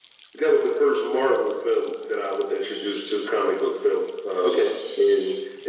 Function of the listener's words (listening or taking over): listening